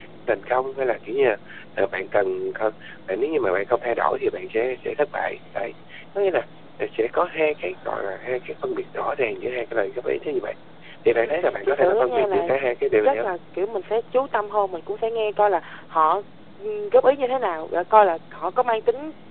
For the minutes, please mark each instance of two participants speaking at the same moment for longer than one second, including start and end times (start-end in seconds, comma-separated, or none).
11.1-12.5